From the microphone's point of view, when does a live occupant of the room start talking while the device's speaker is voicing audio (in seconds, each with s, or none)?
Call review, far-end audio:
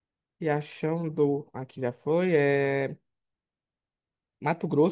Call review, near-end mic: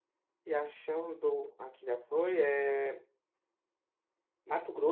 none